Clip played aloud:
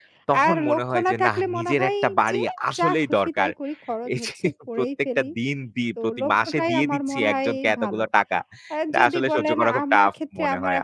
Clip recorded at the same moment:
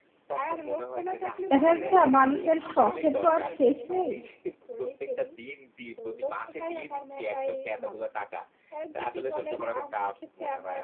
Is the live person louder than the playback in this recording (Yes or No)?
Yes